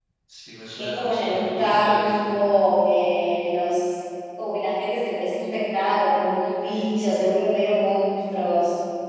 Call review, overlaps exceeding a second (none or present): present